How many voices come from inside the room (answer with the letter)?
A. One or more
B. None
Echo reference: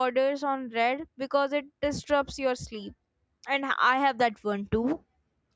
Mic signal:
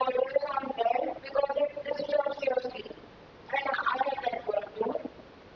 B